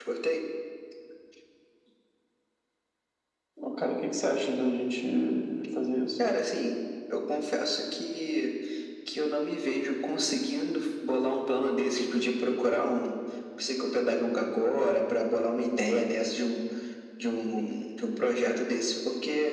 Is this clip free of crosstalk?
Yes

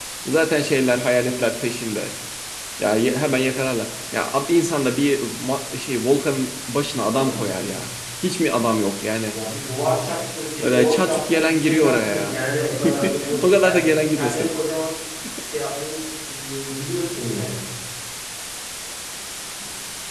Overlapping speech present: Yes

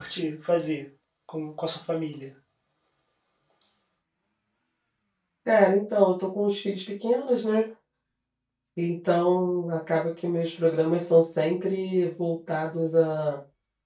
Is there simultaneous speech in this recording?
No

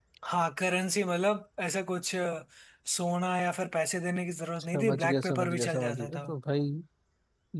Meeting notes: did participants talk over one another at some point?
Yes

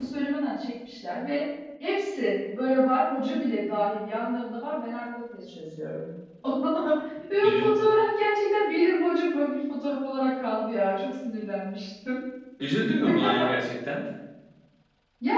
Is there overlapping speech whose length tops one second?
No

